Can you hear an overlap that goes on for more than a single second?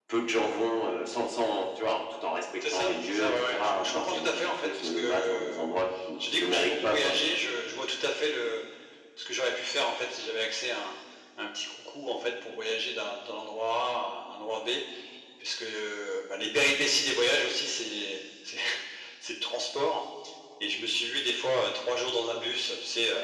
Yes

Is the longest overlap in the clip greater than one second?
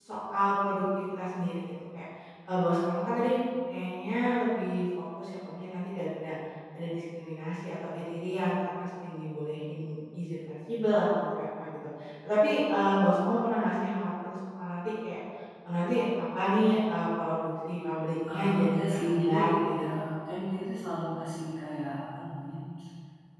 Yes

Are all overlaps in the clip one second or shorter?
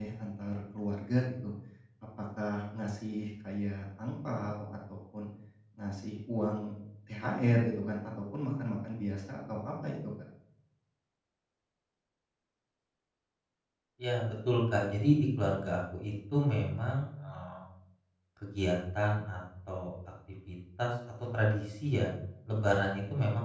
Yes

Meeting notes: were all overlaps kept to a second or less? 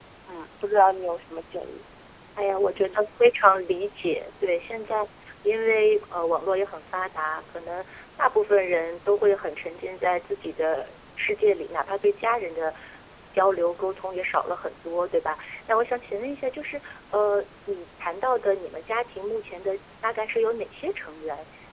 Yes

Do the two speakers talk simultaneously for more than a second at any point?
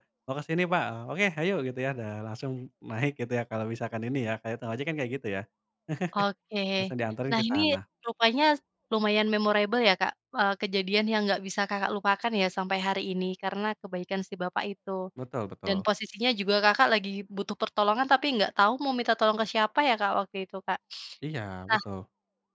No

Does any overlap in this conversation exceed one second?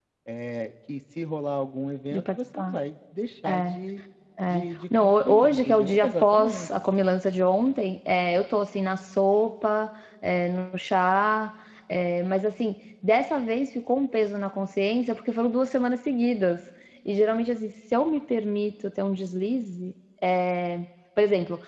Yes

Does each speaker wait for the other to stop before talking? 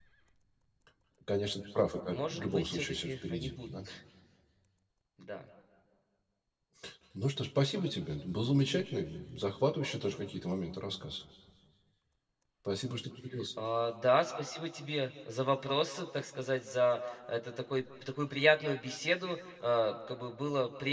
No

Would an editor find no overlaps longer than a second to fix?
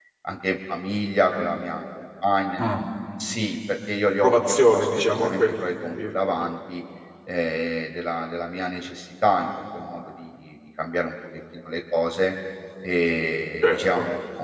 No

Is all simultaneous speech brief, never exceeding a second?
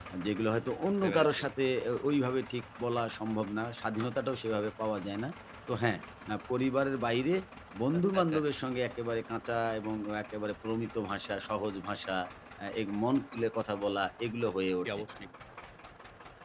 Yes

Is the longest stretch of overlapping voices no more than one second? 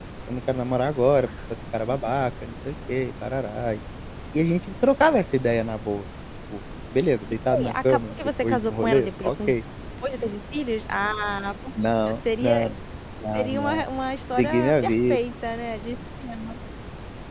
No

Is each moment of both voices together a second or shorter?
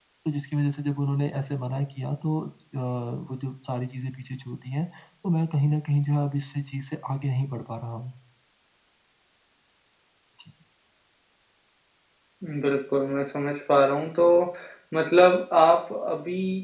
Yes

